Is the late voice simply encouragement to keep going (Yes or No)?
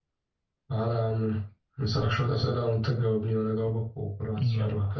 No